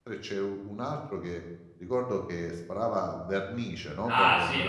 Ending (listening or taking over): taking over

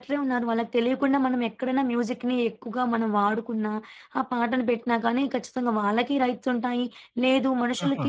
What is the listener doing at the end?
listening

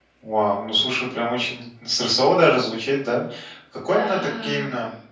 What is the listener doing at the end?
listening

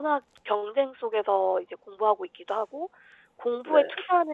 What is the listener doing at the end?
listening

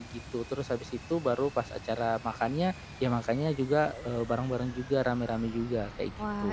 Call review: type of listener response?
taking over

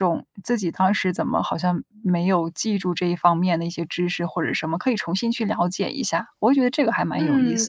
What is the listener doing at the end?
taking over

